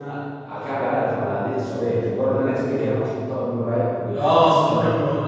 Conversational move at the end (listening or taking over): taking over